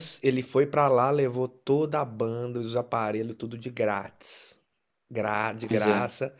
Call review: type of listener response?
listening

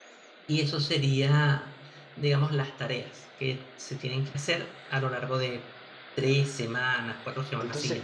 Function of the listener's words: taking over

